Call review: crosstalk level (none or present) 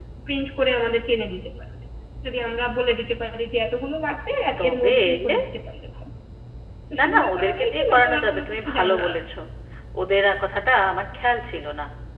present